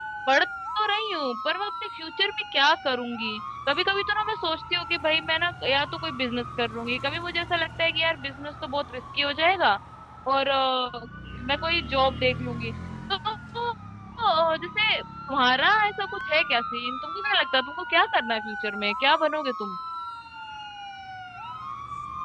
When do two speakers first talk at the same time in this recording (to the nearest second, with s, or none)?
none